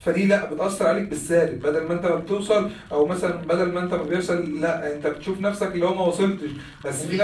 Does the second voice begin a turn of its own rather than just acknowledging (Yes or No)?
No